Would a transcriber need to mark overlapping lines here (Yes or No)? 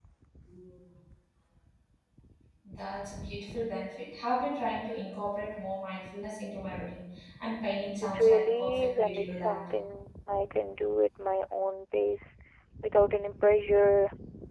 Yes